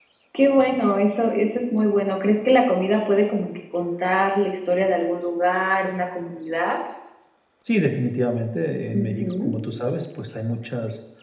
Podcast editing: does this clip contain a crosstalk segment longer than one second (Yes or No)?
No